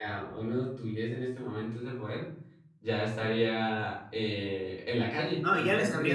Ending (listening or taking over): taking over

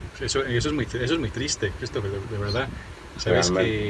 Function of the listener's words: listening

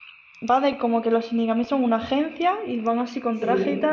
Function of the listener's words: listening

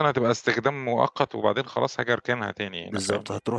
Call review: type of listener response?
taking over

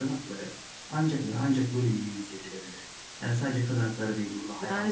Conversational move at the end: taking over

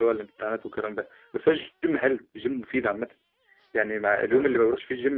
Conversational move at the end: listening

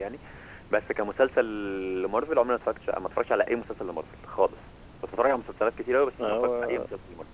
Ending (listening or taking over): listening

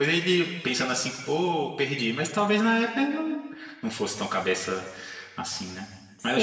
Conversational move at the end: taking over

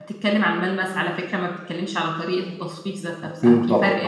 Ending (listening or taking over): listening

